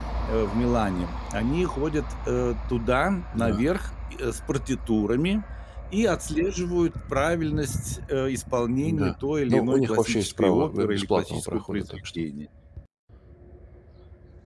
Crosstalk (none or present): present